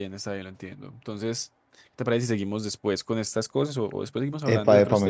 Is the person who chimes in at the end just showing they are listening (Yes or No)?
No